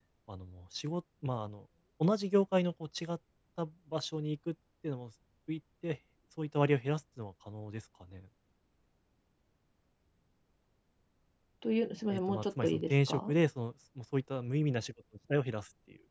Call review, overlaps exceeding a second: present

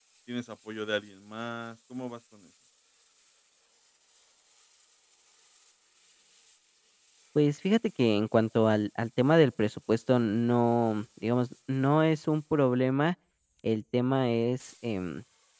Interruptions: none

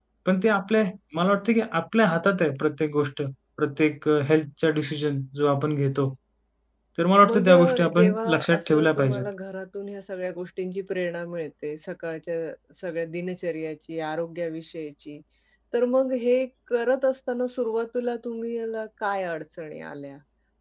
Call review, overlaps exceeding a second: present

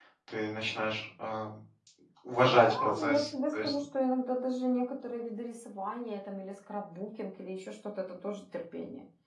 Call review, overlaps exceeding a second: present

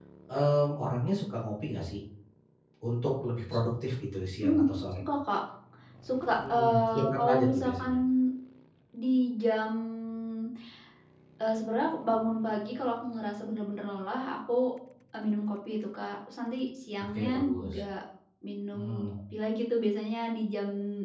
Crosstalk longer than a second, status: present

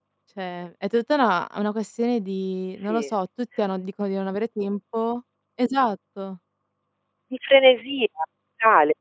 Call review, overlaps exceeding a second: none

